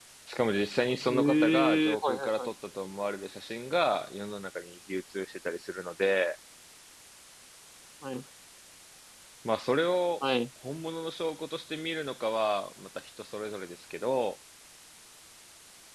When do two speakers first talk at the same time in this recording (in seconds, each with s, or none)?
1.1 s